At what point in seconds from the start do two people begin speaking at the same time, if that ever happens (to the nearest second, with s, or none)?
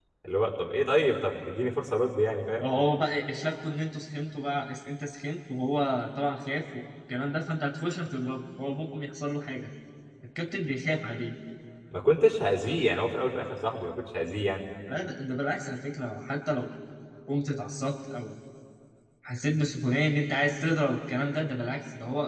none